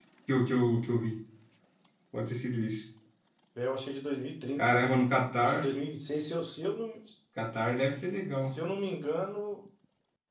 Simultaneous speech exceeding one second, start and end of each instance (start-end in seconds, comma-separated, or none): none